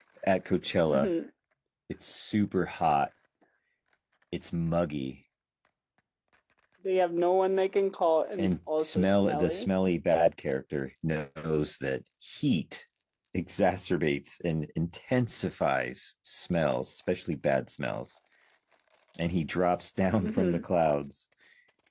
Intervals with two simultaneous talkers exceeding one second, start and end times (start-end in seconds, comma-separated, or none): 8.4-9.7